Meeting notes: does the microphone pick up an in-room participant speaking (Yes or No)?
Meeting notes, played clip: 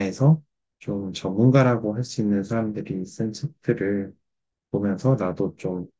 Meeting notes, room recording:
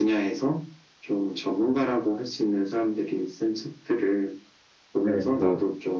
Yes